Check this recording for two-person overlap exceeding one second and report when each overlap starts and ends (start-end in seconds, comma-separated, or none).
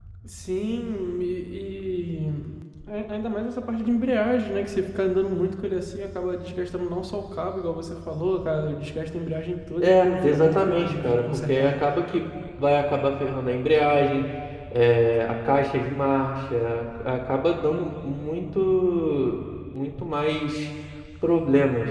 9.8-11.8